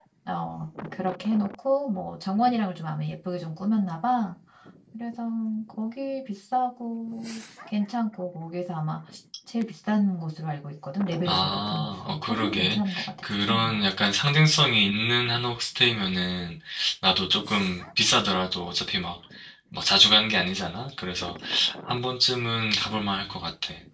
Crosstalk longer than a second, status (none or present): present